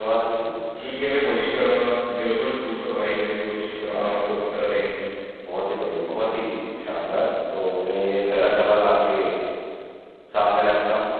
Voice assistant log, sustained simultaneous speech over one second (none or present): none